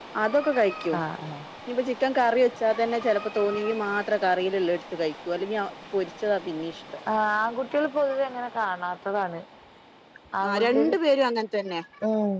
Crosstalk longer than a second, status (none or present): none